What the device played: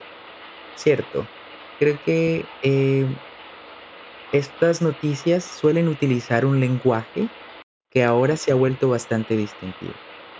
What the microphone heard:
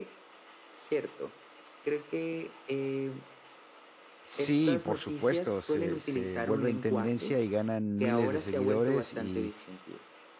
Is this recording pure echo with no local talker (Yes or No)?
No